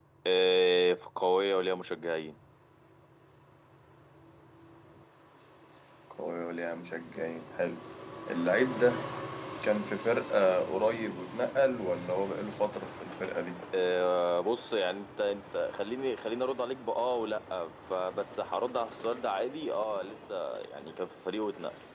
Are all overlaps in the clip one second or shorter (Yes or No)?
Yes